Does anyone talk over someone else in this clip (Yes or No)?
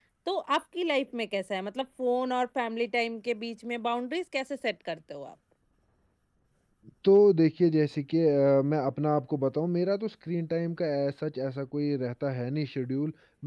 No